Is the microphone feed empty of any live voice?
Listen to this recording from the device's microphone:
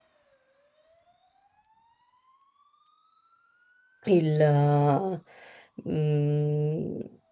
No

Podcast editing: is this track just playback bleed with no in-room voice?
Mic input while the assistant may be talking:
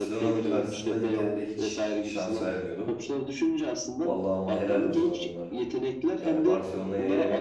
No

